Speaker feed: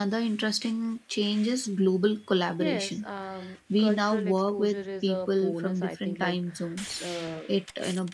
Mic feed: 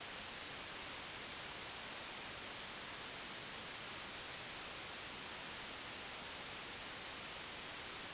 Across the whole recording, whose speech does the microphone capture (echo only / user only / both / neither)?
neither